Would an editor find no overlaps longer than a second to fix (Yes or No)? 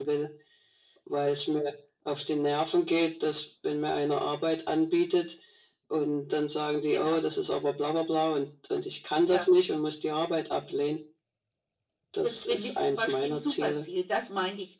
No